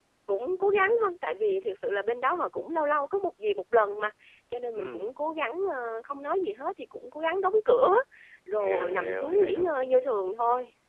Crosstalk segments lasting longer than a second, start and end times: 8.6-9.8

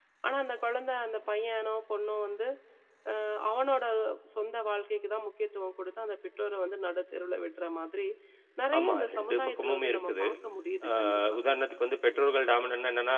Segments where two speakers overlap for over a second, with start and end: 8.8-10.2

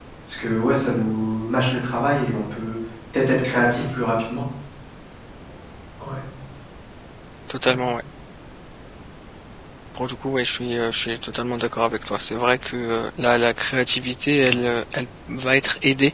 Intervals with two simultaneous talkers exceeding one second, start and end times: none

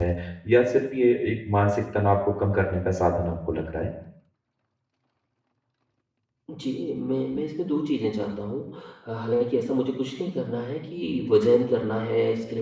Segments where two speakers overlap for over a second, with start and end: none

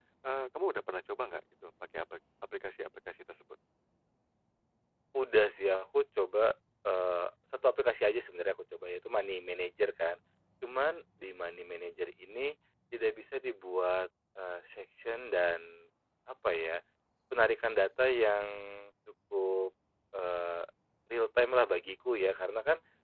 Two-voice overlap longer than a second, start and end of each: none

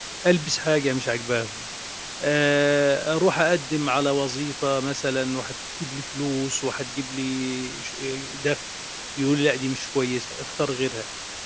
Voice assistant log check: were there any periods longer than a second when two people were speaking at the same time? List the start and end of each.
none

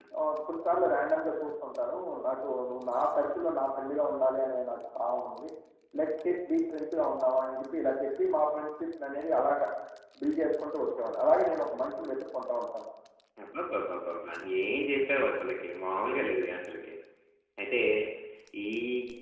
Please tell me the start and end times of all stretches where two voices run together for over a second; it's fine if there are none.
none

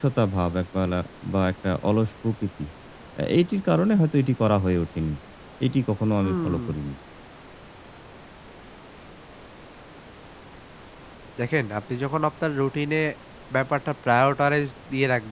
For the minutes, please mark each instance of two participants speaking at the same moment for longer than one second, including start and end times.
none

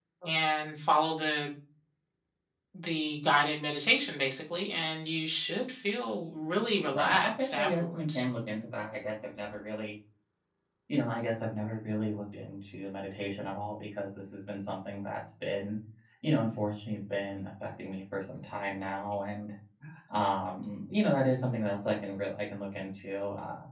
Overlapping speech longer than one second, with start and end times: 6.9-8.2

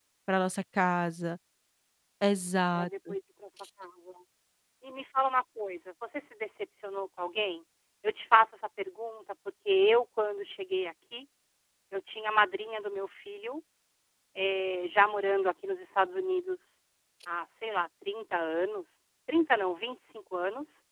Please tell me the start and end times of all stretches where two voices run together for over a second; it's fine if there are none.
none

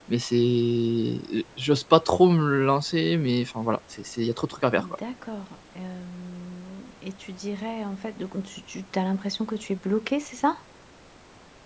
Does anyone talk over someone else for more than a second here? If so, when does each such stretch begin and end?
none

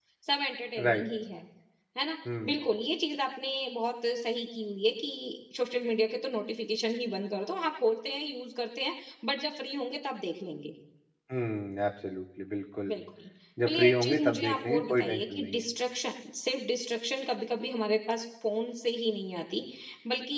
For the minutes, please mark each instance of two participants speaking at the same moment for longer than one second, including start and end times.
13.7-15.7

